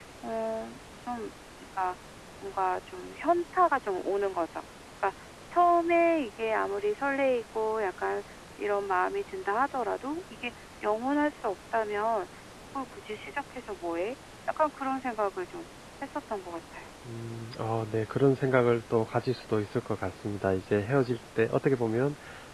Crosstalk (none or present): none